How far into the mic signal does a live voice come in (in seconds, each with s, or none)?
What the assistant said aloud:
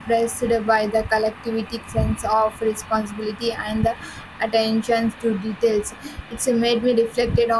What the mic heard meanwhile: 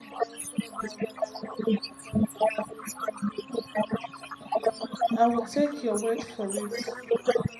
5.1 s